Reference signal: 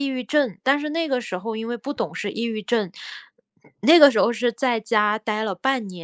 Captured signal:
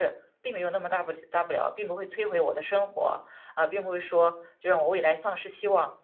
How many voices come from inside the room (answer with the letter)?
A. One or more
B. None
A